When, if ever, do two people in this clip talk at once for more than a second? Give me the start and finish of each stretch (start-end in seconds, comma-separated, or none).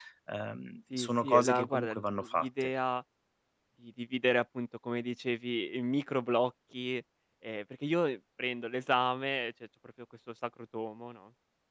0.9-2.7